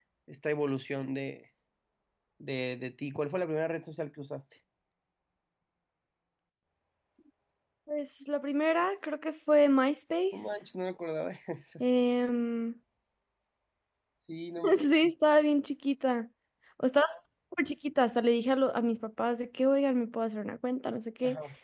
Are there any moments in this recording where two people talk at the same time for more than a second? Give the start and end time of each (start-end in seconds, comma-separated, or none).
none